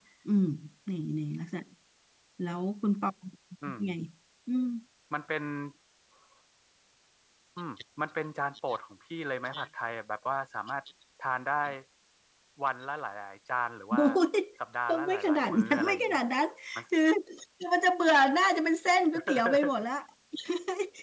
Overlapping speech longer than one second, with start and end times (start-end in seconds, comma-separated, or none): 14.9-16.2